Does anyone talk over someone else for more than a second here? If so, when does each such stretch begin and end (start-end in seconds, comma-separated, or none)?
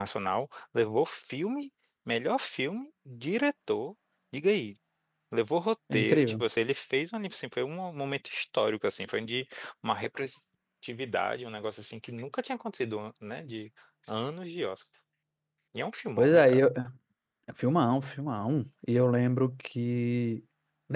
none